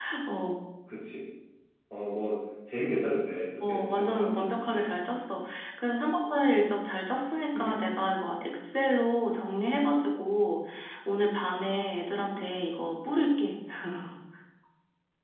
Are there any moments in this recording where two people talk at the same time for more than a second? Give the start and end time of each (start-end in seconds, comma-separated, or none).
3.6-5.0